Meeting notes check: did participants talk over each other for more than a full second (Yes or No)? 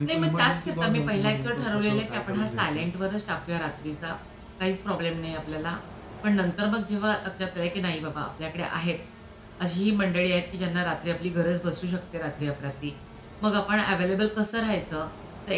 Yes